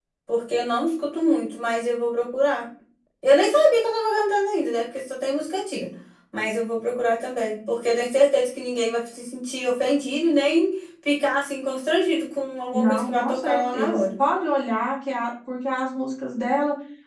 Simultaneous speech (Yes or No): Yes